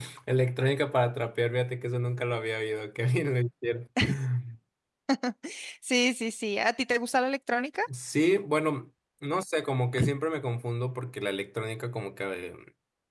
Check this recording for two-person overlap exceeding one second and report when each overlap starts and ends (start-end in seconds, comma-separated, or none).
none